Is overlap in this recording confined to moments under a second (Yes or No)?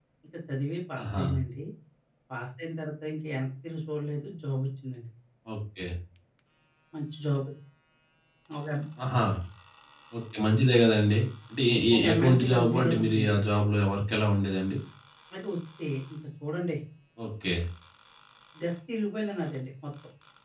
No